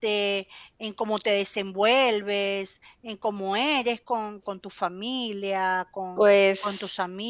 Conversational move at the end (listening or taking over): listening